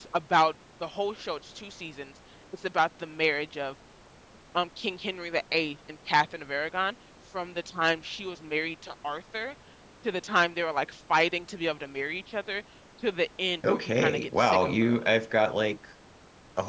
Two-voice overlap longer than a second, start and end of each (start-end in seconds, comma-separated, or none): 13.6-15.1